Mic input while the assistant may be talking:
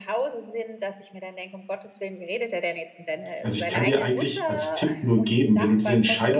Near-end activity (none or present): present